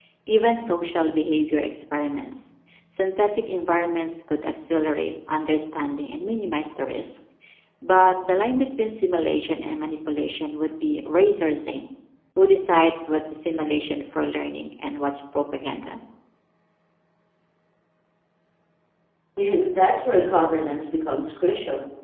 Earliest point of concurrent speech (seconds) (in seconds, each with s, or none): none